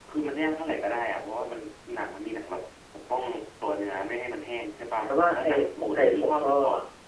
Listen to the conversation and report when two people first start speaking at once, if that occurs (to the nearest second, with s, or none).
5 s